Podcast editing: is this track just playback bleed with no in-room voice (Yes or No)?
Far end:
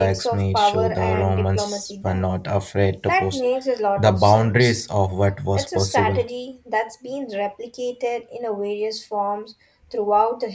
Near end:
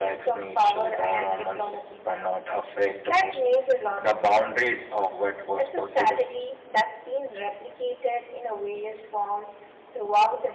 Yes